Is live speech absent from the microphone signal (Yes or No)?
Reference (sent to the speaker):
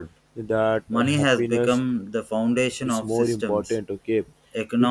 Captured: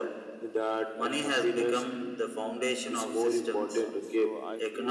No